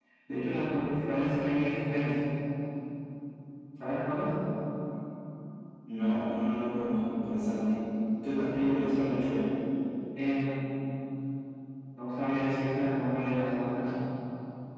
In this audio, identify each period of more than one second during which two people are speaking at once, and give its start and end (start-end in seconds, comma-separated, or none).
none